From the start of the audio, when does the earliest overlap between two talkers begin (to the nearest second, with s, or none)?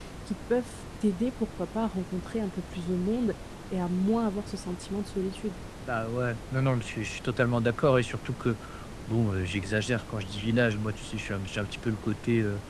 none